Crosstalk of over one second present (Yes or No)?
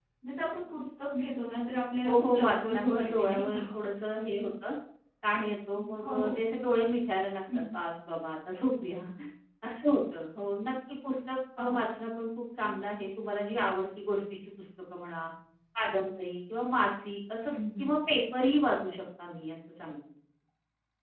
Yes